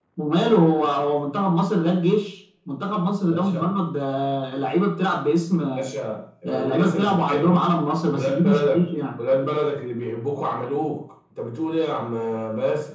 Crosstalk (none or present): present